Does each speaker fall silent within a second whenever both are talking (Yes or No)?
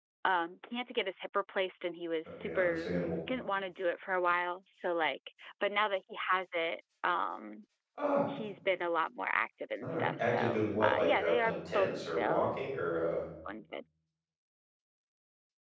No